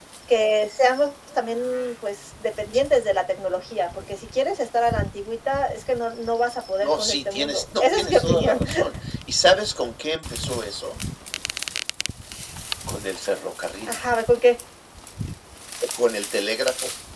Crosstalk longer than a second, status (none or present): present